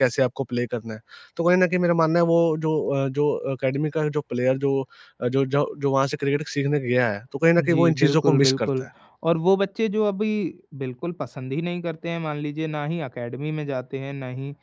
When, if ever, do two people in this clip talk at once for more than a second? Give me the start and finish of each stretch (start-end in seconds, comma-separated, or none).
7.6-8.8